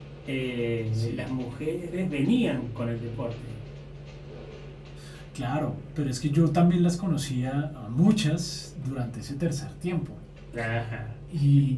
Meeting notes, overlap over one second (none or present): none